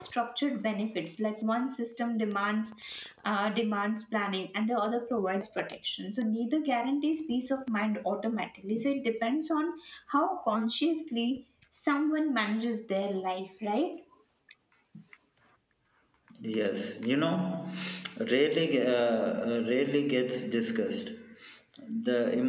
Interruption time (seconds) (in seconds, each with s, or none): none